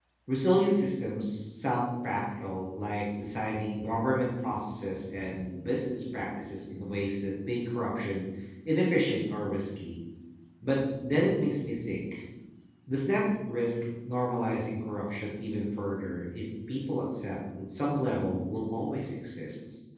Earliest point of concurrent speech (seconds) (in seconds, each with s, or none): none